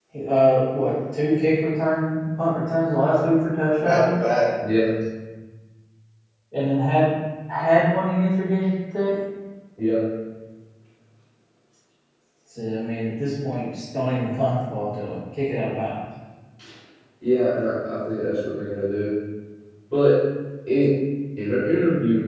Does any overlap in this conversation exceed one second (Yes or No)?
No